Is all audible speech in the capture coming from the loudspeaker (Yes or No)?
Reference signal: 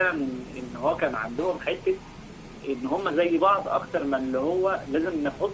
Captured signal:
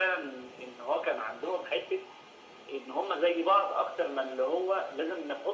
Yes